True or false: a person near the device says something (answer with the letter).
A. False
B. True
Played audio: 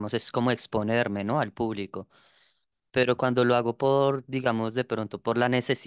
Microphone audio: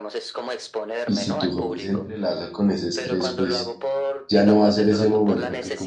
B